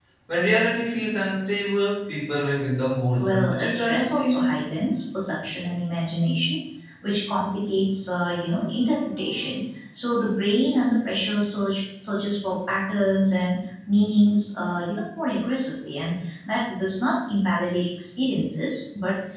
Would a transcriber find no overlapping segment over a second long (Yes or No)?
No